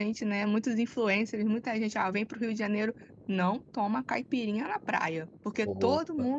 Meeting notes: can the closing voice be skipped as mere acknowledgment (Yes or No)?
Yes